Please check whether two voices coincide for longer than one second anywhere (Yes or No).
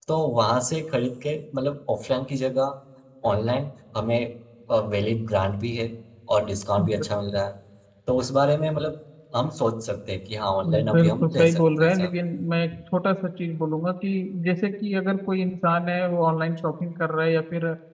Yes